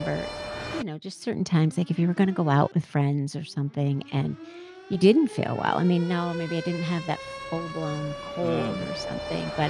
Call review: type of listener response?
listening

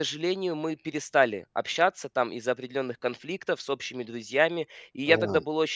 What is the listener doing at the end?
listening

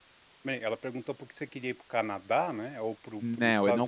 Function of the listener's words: taking over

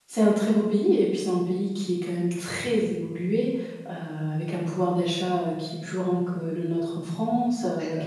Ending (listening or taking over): listening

